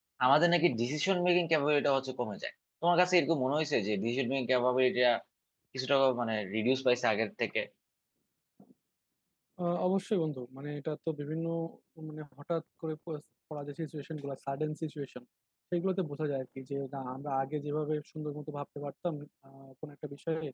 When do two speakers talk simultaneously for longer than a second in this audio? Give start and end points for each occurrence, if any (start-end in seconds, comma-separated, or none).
none